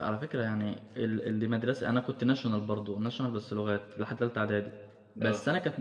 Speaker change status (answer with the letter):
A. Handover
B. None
B